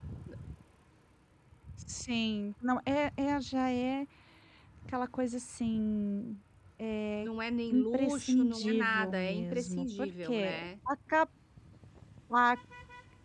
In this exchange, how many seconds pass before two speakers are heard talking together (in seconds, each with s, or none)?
7.7 s